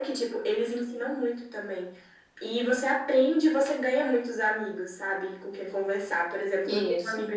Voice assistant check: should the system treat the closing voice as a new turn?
No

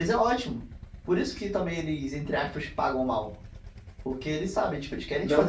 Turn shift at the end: Yes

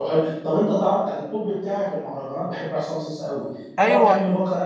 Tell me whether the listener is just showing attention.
Yes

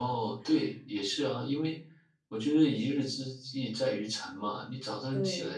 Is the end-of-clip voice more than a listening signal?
No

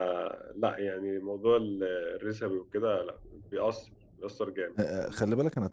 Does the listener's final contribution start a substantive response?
Yes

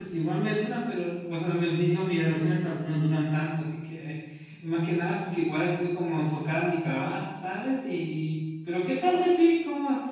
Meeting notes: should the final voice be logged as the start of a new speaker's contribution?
No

